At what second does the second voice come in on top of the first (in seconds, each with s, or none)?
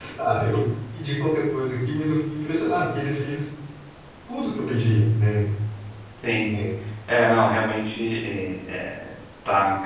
none